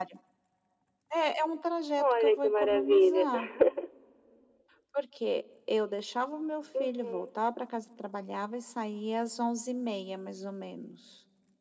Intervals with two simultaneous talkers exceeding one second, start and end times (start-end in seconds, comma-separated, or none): 2.0-3.2